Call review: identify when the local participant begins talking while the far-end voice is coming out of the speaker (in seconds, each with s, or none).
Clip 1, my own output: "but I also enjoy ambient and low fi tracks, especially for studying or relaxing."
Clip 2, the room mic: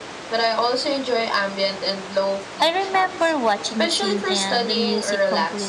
2.6 s